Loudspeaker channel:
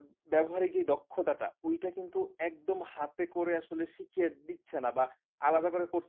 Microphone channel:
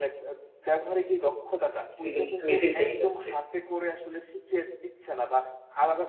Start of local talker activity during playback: 2.0 s

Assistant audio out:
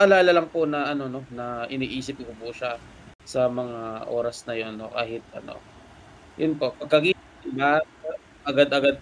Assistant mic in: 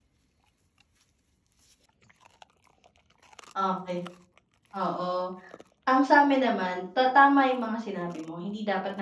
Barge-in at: 3.5 s

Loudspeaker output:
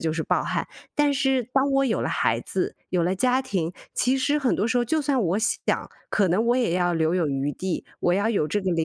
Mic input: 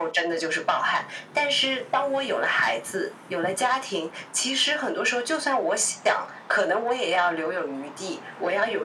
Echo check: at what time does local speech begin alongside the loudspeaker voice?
none

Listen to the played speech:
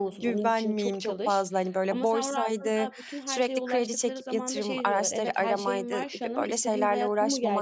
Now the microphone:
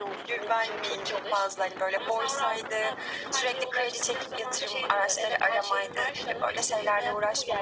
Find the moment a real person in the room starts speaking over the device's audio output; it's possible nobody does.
none

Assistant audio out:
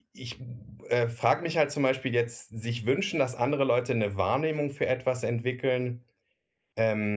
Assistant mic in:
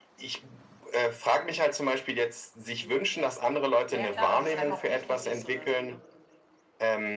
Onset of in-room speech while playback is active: 2.8 s

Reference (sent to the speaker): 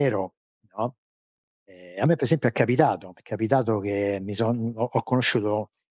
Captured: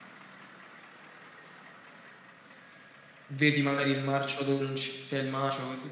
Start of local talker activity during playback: 3.3 s

